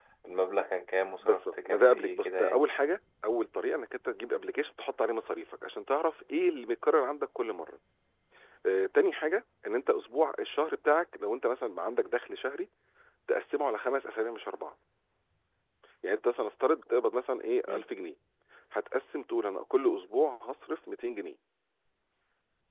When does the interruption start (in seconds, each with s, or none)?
1.1 s